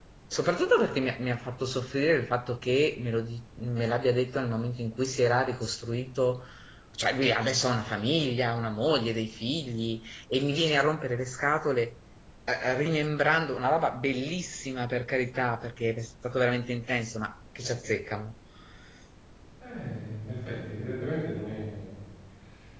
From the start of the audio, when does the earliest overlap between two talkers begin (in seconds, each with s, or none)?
none